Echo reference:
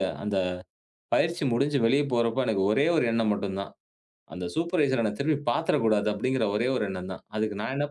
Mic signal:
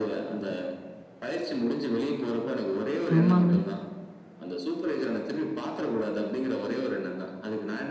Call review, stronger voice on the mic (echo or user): user